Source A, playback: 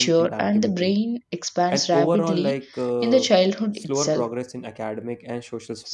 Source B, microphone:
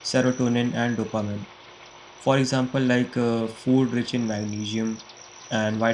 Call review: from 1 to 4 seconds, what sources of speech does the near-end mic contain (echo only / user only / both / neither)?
user only